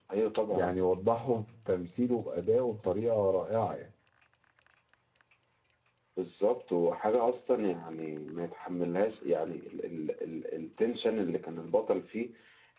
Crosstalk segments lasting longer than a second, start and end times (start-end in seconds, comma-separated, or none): none